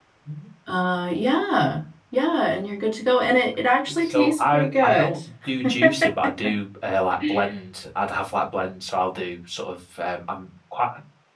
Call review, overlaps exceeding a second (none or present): present